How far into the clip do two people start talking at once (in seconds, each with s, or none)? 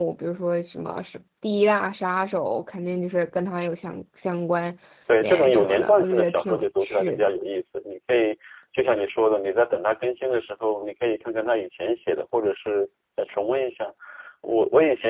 5.2 s